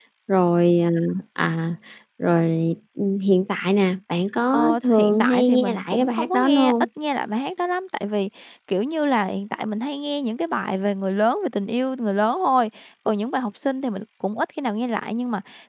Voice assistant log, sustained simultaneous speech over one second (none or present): present